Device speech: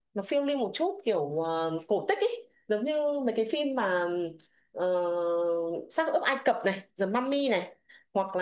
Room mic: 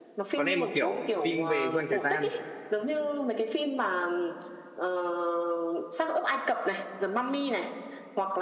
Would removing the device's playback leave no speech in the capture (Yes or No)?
No